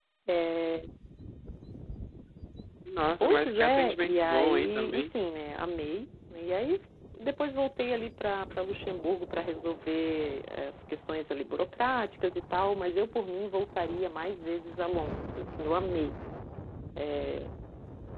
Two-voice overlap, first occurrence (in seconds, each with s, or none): 3.2 s